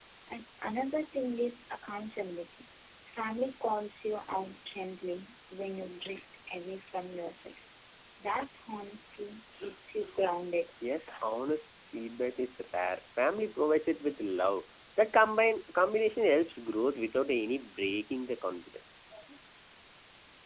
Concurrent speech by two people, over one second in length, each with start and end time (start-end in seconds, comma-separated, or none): none